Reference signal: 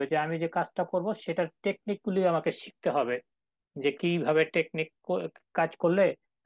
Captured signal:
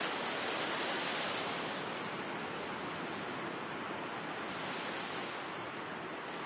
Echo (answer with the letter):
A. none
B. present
A